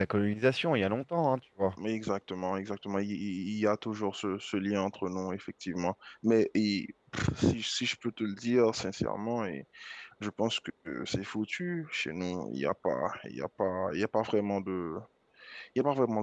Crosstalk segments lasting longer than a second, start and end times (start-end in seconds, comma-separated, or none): none